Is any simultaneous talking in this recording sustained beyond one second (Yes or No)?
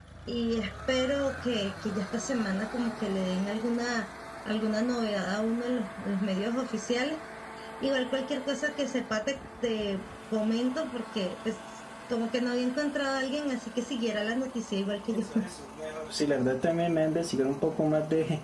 No